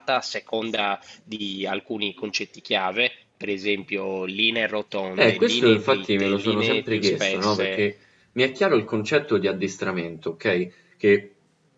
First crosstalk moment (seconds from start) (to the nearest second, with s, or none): 5 s